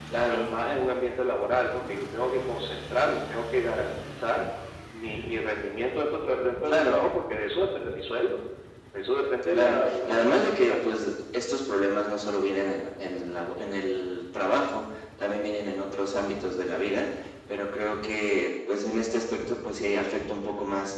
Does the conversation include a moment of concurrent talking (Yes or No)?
Yes